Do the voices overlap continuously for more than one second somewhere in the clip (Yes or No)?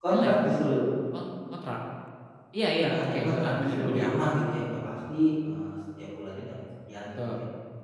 Yes